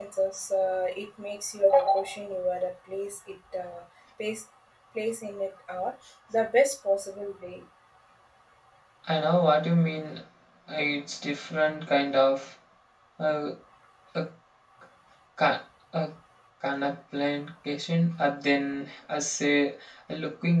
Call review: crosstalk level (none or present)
none